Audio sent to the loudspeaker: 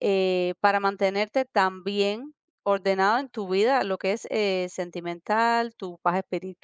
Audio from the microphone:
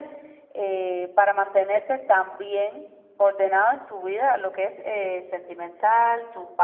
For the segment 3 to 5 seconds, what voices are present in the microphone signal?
echo only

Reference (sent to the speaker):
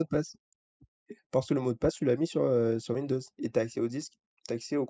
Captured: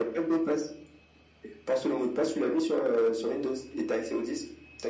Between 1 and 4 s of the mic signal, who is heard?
echo only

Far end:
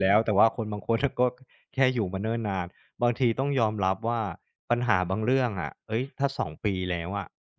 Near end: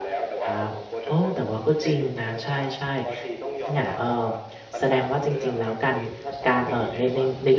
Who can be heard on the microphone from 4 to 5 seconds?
both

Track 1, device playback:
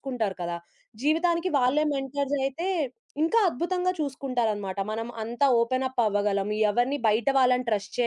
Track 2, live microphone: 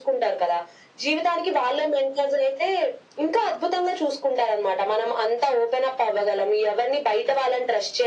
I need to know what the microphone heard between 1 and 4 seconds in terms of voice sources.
echo only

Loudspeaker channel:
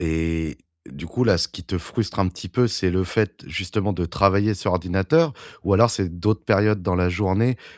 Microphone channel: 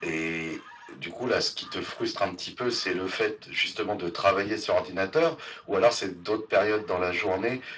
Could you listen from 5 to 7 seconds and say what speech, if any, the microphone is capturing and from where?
echo only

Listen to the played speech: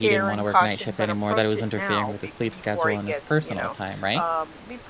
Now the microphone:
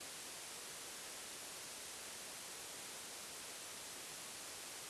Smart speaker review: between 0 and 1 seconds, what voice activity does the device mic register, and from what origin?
neither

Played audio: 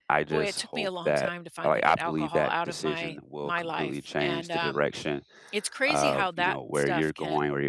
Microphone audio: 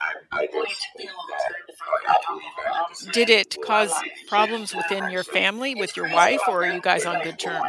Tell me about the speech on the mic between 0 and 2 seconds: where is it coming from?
echo only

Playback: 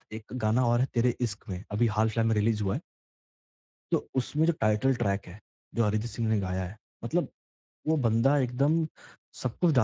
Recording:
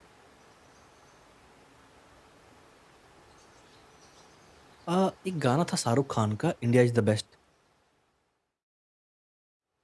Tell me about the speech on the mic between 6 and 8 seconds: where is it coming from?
user only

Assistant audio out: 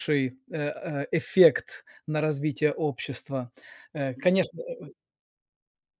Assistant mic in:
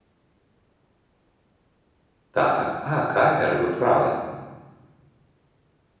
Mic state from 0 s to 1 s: neither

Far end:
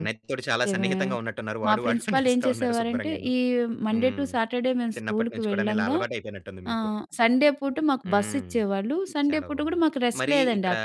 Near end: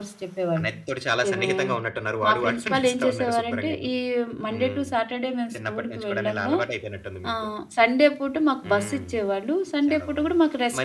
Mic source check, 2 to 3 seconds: echo only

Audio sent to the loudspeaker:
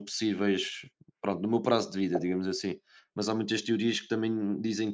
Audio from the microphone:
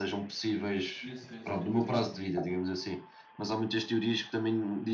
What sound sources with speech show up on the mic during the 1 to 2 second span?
both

